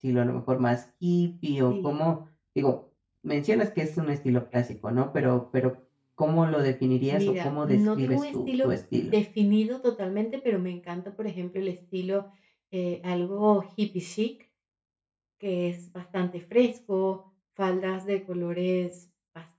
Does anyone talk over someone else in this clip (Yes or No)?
Yes